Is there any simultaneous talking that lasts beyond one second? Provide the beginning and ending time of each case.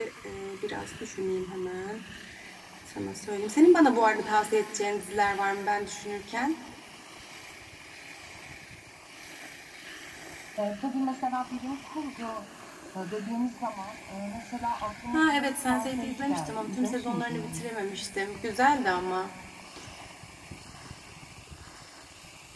15.1-17.7

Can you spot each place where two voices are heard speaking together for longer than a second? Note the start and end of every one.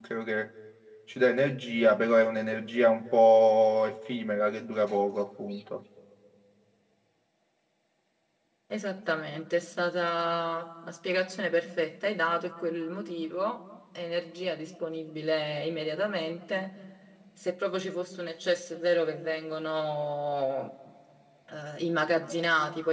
none

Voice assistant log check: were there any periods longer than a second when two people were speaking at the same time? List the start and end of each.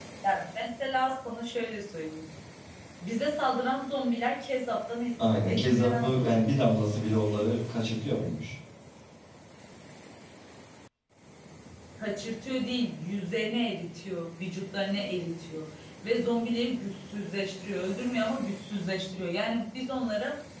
5.4-6.7

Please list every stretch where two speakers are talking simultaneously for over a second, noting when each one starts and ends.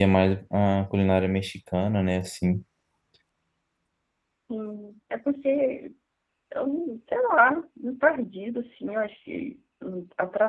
none

